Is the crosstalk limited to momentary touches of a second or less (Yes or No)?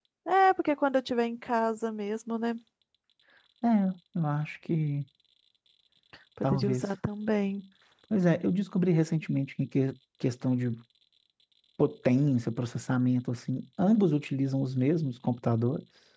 Yes